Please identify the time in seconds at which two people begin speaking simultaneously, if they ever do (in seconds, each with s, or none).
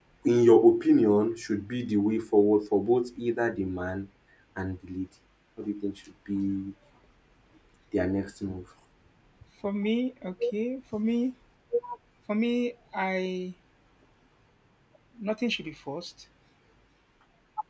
none